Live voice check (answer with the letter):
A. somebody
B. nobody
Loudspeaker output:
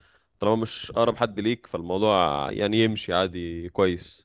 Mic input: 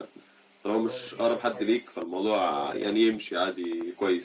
A